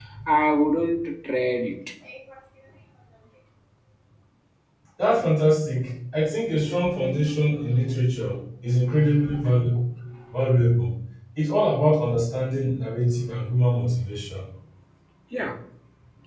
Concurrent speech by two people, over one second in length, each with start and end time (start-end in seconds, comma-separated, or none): none